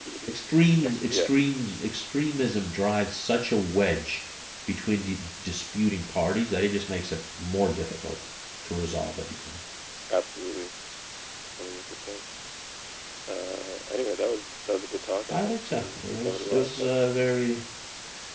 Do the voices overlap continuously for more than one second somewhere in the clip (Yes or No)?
Yes